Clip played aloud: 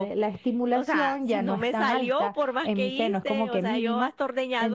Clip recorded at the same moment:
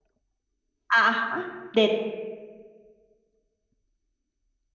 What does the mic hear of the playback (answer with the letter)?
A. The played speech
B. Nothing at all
B